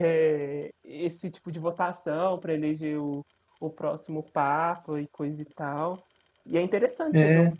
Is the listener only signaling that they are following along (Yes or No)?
Yes